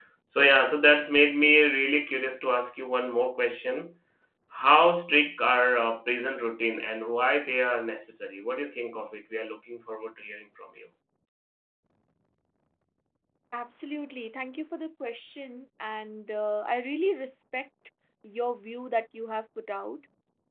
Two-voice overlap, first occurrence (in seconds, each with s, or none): none